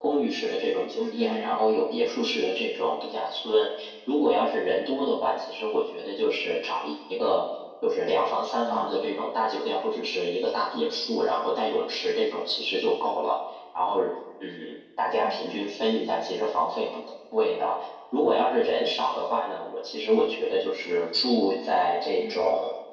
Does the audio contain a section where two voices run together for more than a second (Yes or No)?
No